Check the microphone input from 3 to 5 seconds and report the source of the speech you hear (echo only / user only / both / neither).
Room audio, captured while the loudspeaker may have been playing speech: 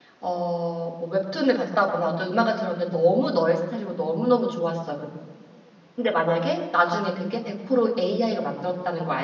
user only